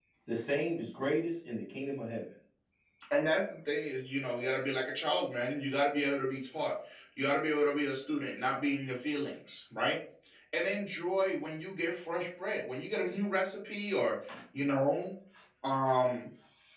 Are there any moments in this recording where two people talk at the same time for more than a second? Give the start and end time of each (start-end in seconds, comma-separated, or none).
none